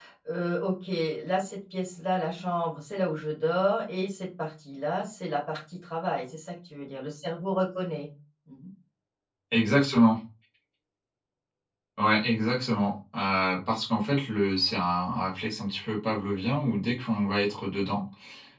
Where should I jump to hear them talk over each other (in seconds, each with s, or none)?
none